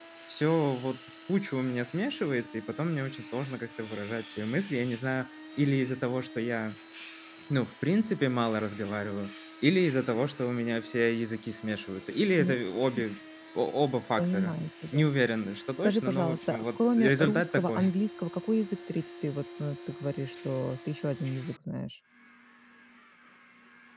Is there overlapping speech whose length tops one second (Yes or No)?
Yes